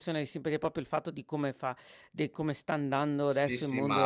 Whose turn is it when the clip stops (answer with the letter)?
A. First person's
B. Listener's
B